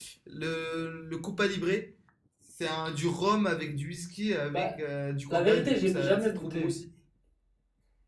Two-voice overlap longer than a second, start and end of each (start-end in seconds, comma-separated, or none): 5.3-6.7